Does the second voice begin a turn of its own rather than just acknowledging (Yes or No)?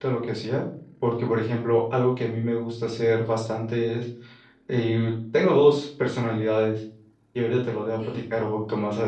No